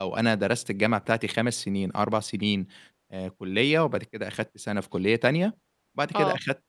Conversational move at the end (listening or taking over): listening